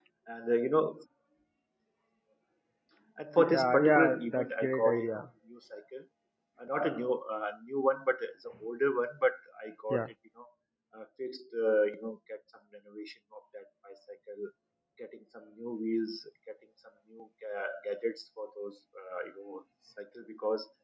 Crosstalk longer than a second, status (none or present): present